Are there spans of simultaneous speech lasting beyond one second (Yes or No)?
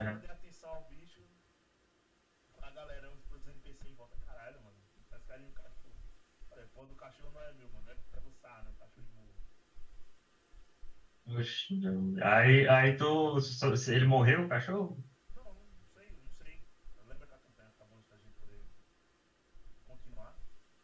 No